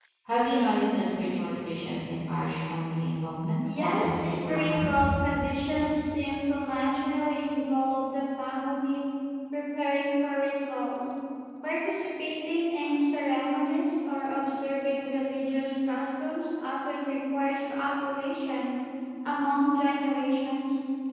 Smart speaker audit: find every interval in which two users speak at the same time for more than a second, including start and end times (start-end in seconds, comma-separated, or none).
3.8-5.1